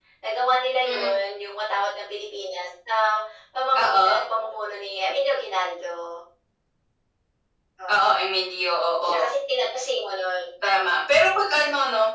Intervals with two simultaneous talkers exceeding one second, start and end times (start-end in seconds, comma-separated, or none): none